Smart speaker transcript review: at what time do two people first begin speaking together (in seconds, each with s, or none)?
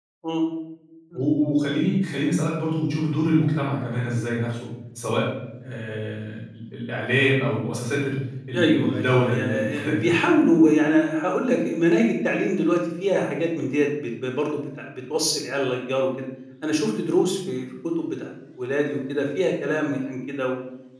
8.5 s